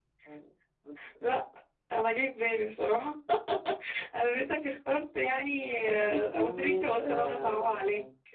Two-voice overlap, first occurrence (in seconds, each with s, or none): 5.8 s